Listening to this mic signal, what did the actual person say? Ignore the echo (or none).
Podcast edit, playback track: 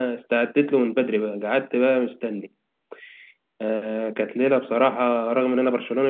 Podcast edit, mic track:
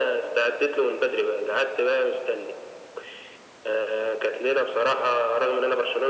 none